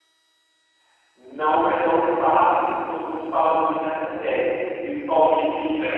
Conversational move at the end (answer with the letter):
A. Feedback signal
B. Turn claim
A